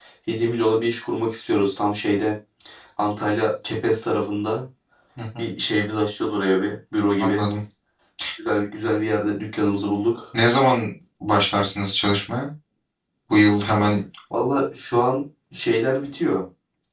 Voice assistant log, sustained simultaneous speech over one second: none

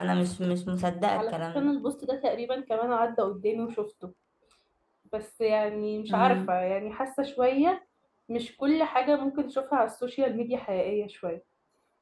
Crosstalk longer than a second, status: none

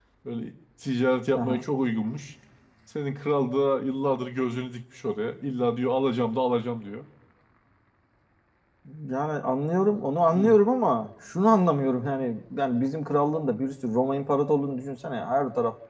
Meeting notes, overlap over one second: none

